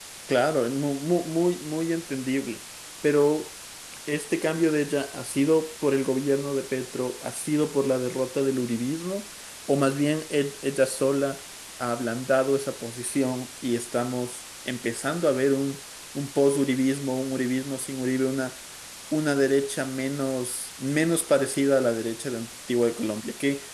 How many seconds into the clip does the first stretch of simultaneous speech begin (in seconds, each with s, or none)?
none